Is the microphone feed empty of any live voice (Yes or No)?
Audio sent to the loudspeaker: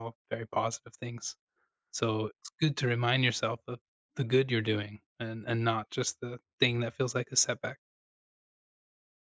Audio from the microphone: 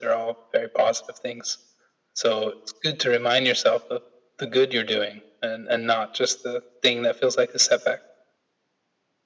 Yes